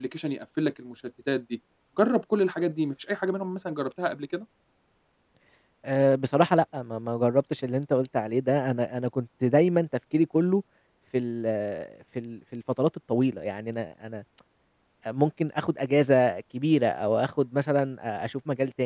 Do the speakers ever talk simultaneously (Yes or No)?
No